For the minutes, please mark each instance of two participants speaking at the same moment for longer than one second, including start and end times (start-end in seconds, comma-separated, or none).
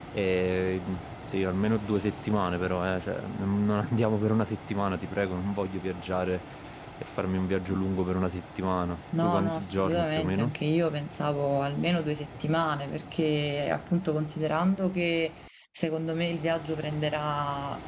9.2-10.5